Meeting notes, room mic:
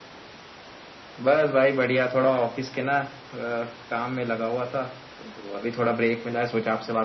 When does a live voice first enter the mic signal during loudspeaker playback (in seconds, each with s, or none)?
none